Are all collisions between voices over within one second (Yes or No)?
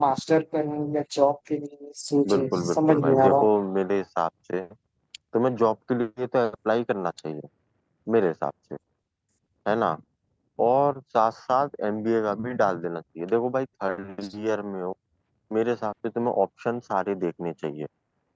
No